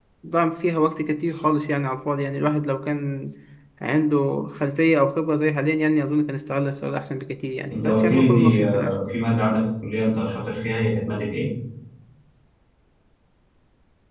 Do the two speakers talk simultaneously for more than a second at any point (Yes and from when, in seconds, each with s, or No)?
Yes, from 7.7 s